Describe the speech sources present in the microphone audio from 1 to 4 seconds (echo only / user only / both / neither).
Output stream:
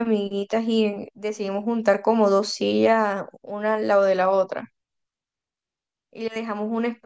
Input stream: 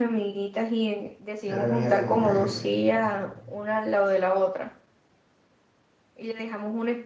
both